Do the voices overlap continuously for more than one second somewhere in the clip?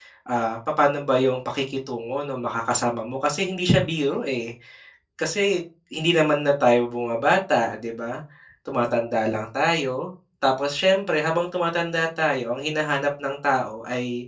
No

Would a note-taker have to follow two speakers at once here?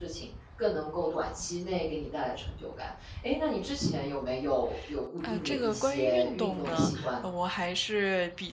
Yes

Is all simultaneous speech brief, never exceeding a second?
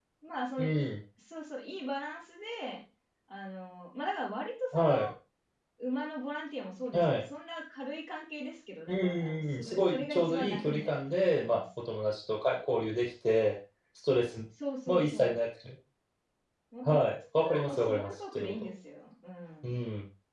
No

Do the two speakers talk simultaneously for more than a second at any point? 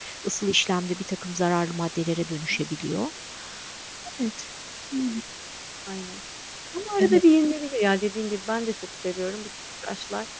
No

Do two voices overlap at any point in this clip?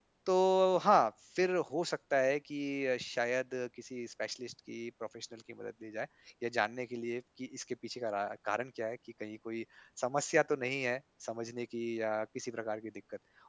No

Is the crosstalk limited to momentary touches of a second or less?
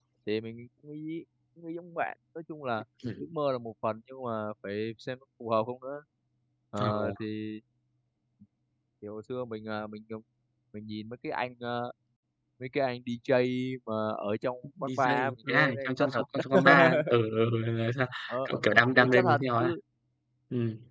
No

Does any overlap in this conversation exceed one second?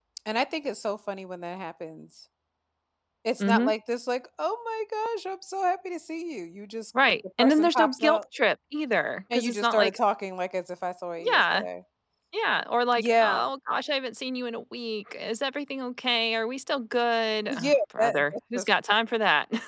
Yes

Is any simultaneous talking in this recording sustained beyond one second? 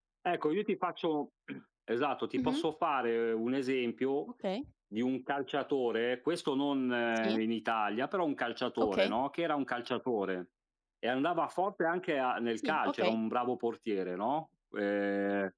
No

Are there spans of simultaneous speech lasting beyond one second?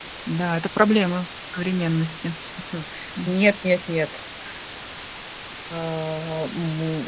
No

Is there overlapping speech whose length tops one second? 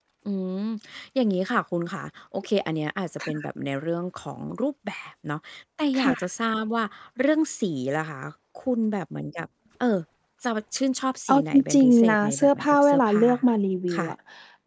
Yes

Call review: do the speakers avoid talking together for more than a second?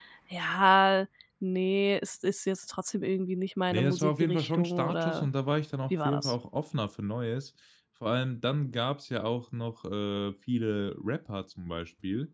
No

